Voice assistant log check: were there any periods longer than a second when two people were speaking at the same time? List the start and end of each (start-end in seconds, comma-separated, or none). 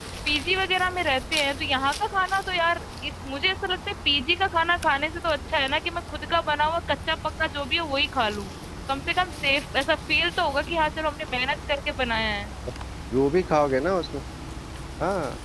none